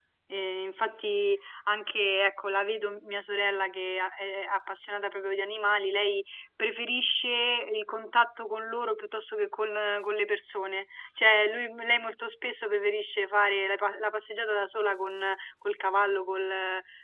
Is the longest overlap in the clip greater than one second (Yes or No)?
No